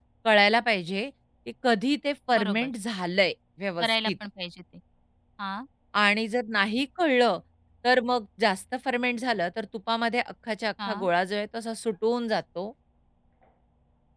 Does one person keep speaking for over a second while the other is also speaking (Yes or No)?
No